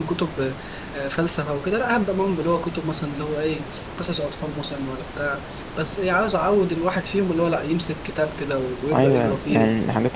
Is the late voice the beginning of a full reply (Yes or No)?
Yes